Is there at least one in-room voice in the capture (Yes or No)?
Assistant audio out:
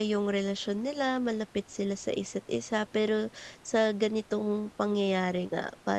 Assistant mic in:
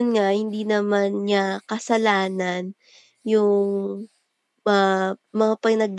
Yes